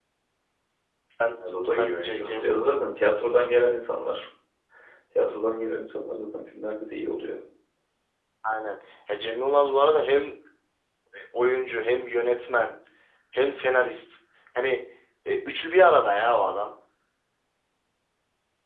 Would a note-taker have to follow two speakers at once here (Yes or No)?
Yes